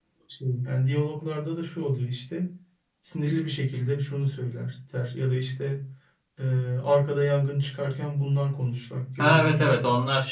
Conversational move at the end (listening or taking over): taking over